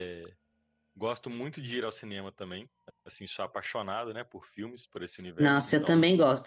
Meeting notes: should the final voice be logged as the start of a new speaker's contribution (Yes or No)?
Yes